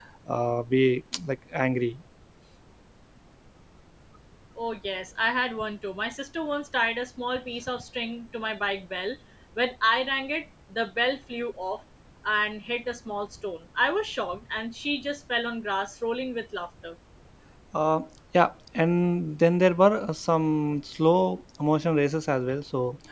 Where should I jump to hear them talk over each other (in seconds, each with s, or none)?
none